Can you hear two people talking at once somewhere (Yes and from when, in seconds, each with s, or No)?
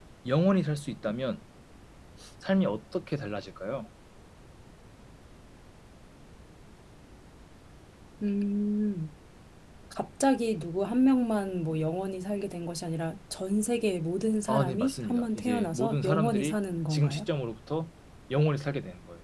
Yes, from 14.5 s